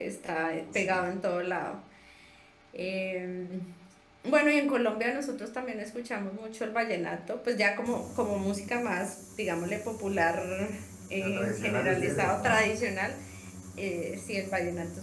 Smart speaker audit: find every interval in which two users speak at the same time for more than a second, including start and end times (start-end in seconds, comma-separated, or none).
11.2-12.6